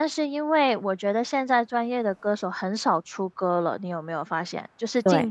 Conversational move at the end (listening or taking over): listening